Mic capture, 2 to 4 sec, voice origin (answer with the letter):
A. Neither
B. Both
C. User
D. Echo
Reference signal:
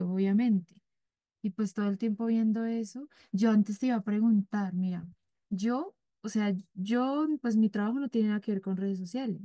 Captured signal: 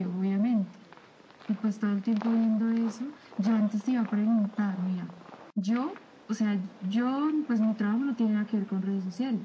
D